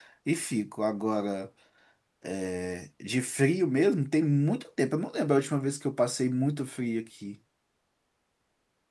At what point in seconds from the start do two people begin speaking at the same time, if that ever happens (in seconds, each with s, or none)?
none